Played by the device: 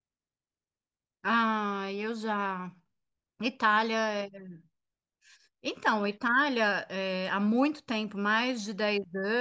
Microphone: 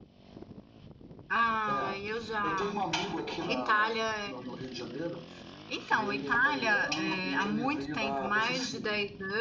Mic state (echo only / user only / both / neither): both